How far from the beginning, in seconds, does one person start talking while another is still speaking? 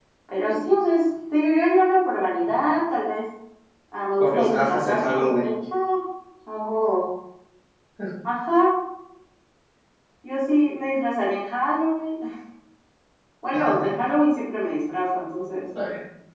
4.2 s

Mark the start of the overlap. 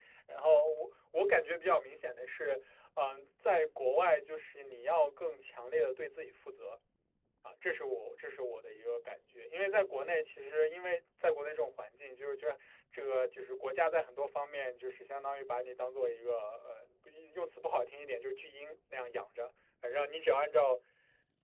none

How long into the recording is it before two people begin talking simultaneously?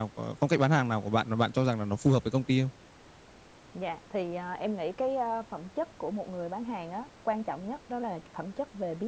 none

